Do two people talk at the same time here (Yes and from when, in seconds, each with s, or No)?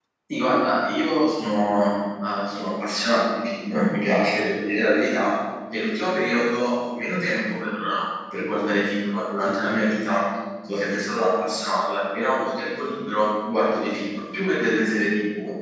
No